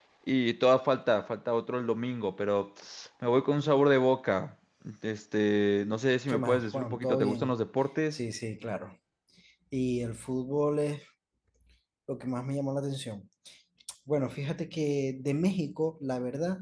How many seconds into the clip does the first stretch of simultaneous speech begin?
6 s

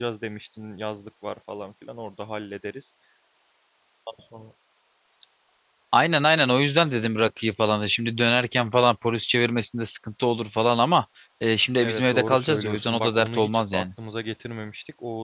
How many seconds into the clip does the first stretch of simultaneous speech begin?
12 s

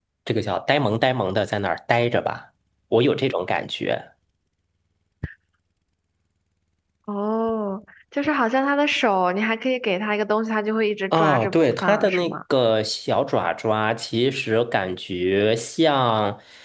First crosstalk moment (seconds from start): 11 s

